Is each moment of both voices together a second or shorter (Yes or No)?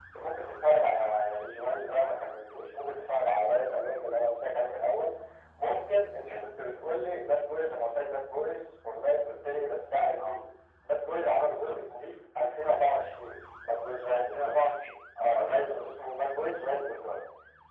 Yes